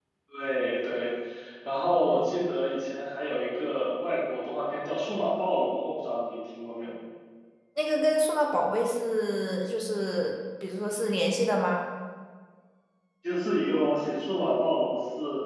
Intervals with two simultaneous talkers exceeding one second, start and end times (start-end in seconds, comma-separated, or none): none